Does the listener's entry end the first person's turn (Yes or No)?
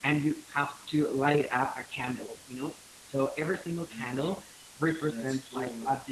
No